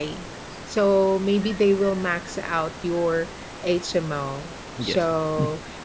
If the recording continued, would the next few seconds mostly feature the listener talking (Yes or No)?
No